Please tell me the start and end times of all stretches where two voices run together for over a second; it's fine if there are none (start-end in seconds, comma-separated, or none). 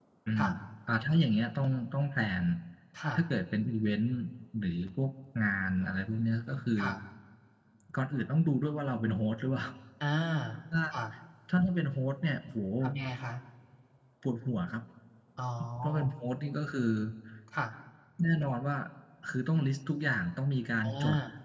none